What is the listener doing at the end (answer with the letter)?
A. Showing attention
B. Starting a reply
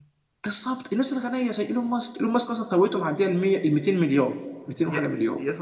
B